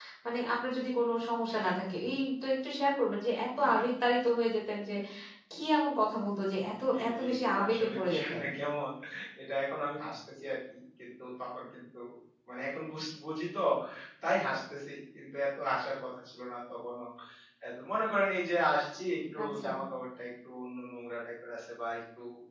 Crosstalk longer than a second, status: present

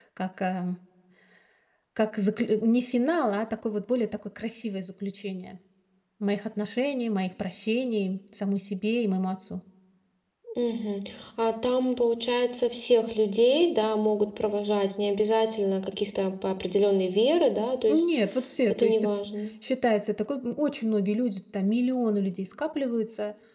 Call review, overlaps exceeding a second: none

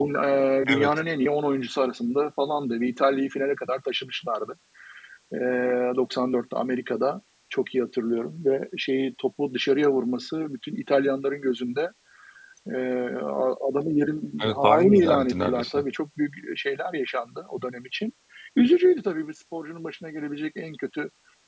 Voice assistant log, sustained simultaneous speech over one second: present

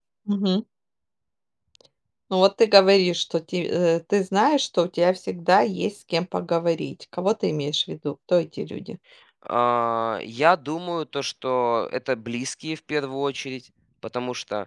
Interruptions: none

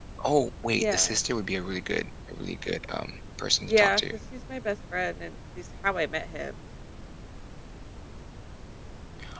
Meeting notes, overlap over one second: none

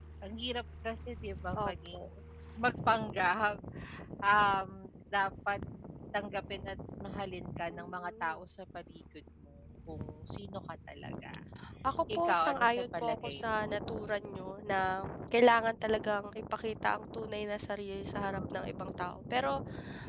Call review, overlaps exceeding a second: present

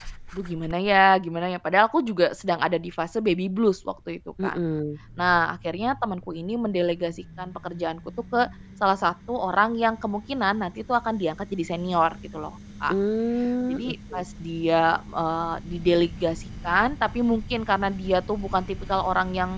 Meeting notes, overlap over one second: none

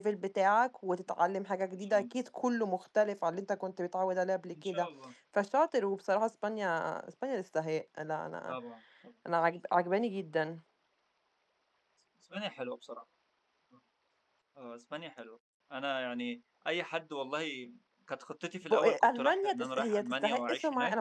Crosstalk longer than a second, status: present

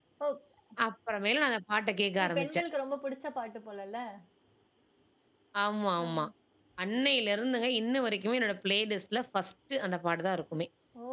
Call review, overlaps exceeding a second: none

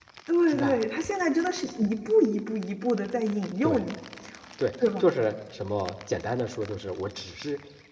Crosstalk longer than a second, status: none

